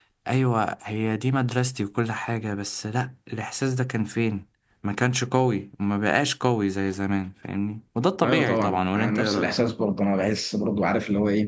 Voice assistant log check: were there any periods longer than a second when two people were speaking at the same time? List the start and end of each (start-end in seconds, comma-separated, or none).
8.2-9.5